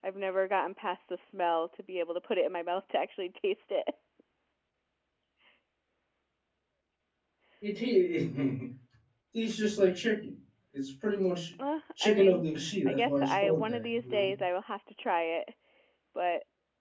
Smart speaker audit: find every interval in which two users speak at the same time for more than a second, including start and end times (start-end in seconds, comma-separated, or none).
12.8-14.3